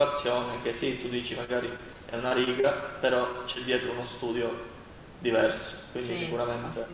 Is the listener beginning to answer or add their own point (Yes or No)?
Yes